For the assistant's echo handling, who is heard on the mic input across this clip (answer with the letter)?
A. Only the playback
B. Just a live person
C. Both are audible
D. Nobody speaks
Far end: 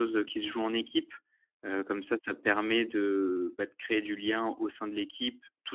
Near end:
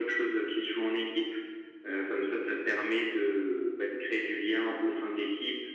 A